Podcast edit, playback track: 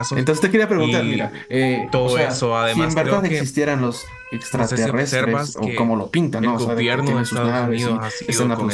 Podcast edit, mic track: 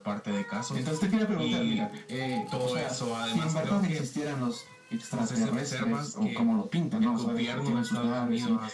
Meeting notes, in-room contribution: none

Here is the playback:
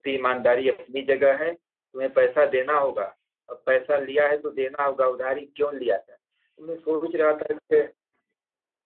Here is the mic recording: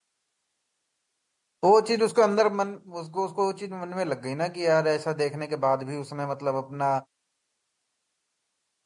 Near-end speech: present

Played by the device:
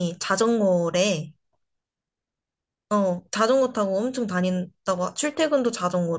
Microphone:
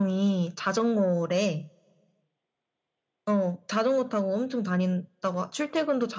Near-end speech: none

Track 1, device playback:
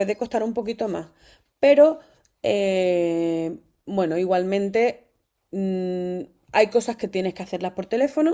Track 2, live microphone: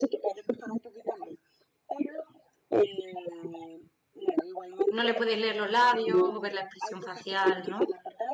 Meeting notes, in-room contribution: present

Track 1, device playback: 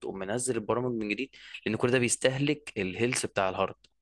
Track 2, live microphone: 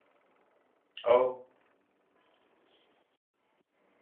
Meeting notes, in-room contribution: present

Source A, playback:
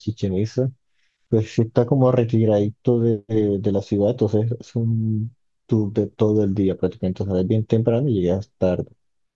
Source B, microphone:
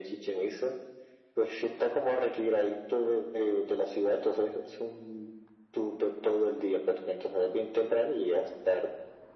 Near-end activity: none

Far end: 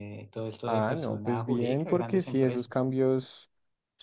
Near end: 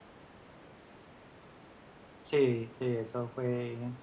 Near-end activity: present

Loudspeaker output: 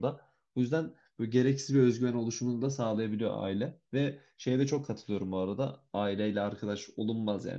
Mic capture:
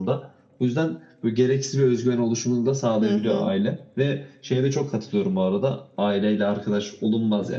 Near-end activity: present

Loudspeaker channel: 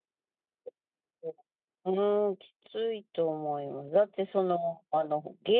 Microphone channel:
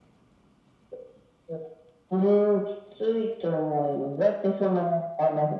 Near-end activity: none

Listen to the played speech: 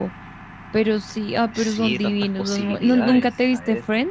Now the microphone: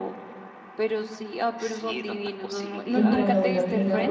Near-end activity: present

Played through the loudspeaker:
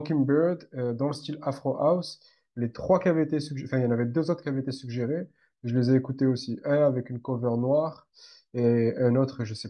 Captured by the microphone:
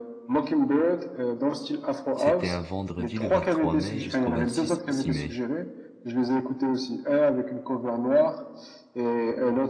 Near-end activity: present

